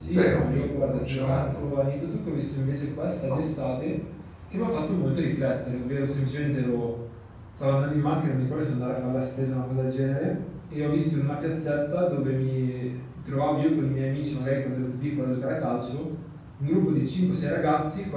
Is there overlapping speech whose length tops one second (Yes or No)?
Yes